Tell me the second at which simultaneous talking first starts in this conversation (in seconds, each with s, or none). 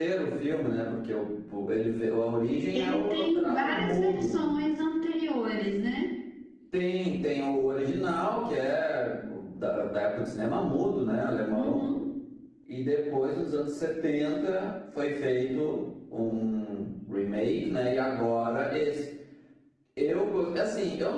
2.7 s